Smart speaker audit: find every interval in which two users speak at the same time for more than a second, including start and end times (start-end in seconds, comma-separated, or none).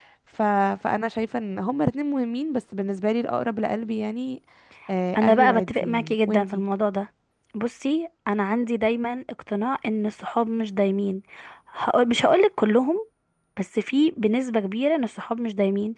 5.2-6.6